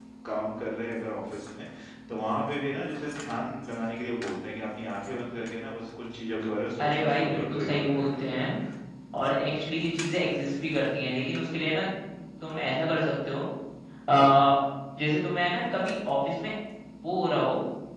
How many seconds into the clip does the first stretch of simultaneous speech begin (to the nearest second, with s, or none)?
7 s